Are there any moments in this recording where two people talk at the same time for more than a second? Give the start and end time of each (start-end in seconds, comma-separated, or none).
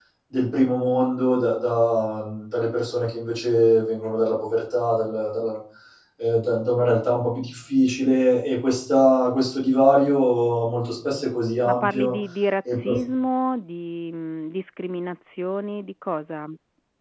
none